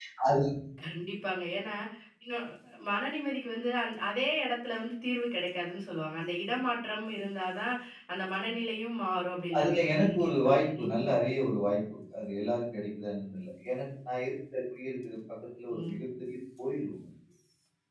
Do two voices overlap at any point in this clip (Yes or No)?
Yes